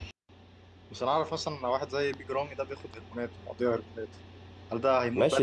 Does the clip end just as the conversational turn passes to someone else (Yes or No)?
Yes